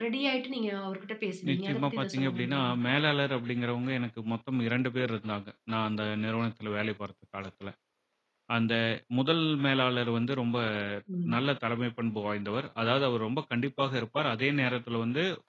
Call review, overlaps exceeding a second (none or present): present